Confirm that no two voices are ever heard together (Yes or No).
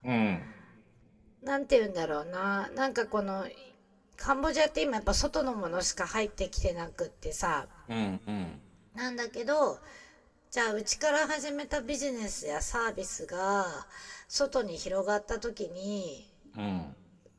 Yes